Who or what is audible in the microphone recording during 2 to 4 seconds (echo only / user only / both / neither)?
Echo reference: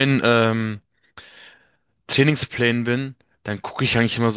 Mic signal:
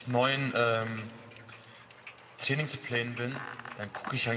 echo only